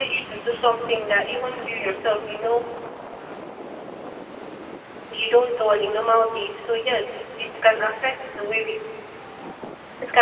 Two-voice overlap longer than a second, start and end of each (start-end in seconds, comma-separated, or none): none